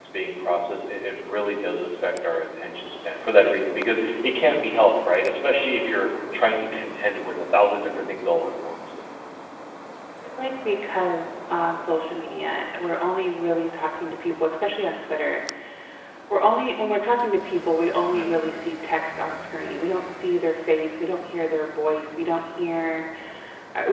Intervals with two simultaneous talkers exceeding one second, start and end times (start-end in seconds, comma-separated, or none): none